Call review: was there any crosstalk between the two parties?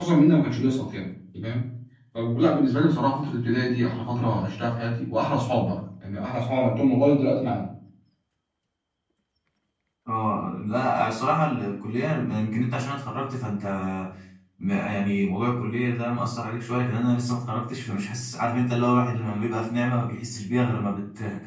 No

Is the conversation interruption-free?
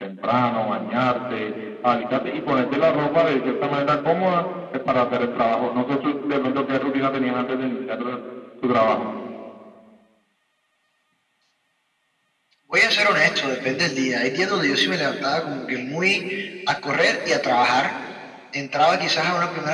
Yes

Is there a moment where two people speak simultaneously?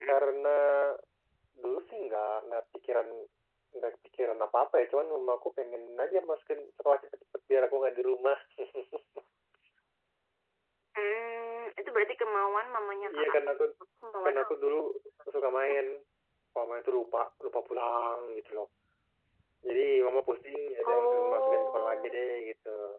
Yes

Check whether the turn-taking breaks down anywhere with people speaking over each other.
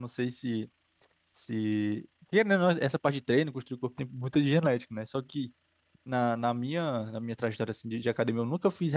No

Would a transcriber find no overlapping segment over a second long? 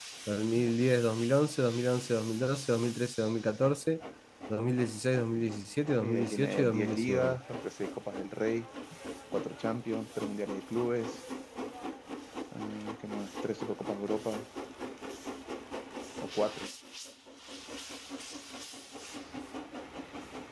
No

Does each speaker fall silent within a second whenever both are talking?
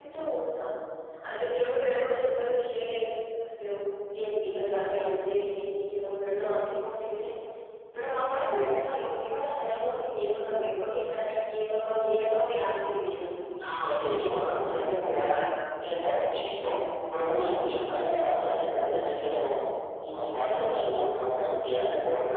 Yes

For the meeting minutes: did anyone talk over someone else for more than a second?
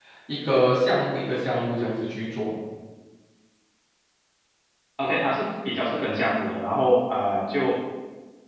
No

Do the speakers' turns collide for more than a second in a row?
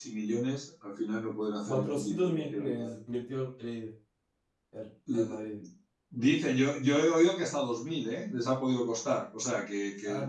Yes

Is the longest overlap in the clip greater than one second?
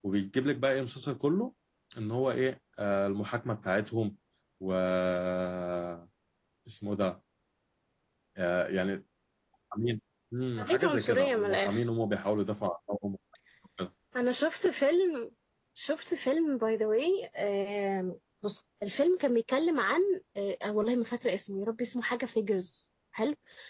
Yes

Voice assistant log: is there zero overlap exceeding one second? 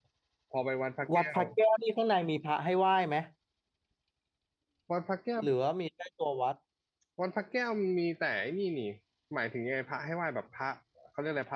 Yes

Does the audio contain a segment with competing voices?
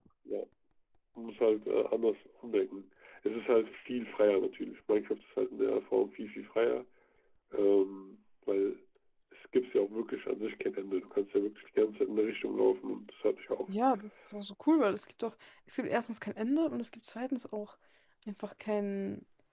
No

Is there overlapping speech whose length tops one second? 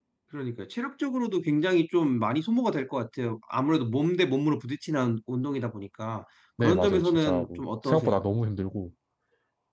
Yes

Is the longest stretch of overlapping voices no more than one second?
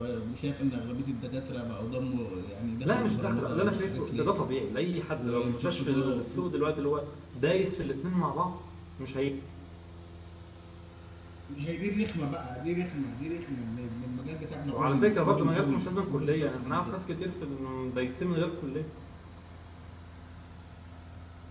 No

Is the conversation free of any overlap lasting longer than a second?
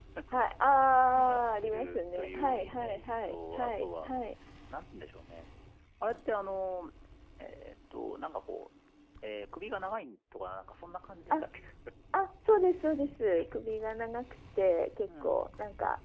No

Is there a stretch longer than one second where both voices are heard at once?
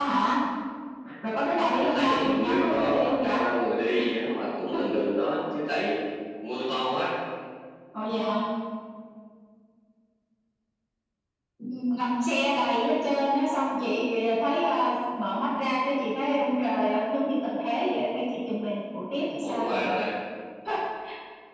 Yes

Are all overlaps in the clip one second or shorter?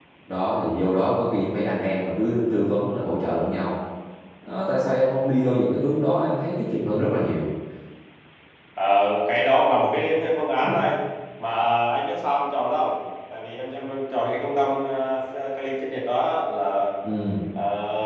Yes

